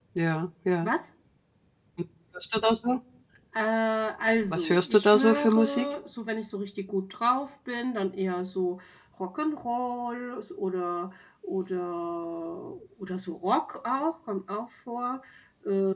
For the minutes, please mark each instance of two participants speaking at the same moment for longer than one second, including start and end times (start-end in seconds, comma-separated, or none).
4.5-5.9